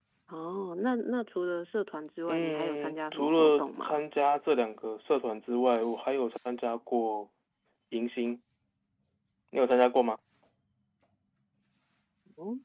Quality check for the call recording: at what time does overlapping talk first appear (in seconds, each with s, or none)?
2.3 s